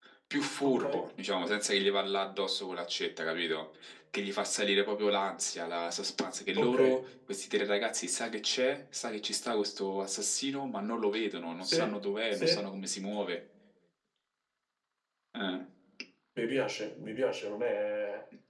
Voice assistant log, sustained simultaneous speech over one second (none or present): none